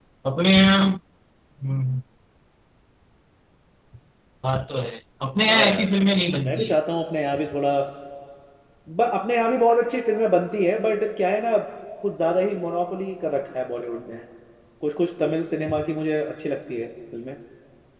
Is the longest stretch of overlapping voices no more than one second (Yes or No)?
Yes